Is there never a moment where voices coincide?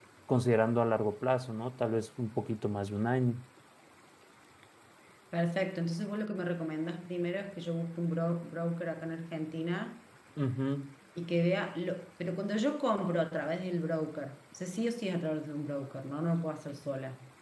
Yes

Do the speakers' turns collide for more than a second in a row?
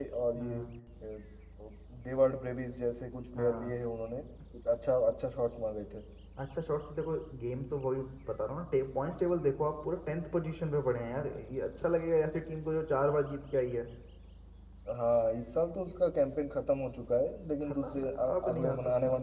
Yes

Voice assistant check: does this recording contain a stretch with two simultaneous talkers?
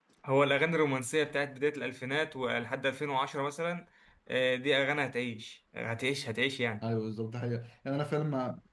No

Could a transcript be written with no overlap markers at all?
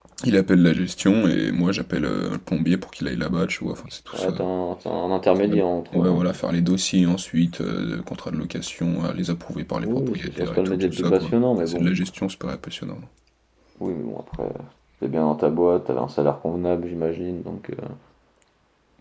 No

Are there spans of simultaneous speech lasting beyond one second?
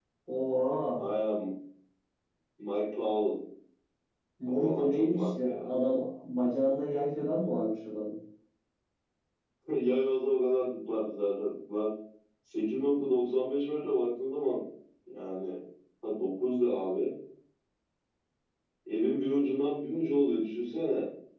Yes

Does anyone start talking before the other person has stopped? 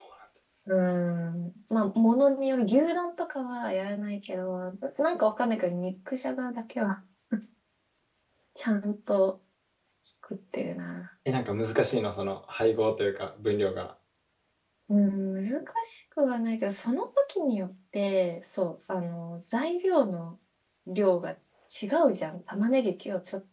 No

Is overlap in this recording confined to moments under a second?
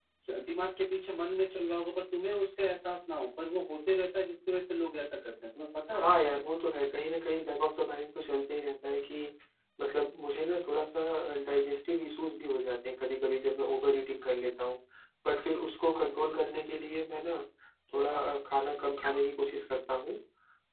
Yes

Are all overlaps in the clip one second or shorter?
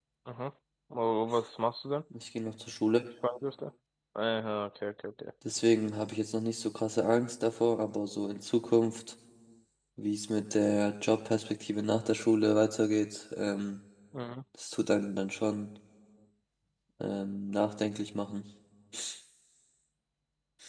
Yes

